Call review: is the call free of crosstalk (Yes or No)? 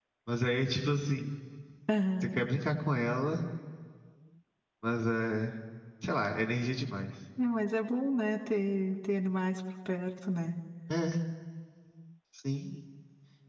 Yes